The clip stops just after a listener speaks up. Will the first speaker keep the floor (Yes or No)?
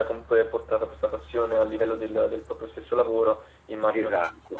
No